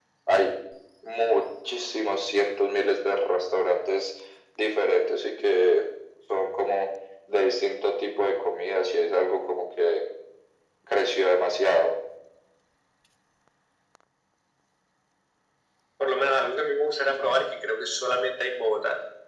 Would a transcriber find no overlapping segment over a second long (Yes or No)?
Yes